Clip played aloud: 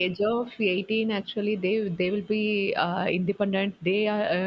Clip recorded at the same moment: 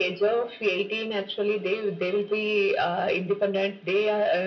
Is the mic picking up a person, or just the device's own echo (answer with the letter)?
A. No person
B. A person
A